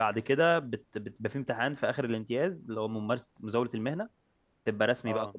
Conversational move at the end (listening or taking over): listening